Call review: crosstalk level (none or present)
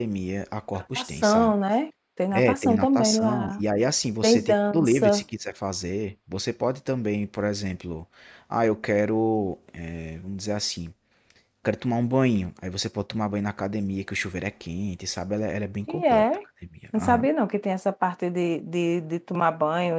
present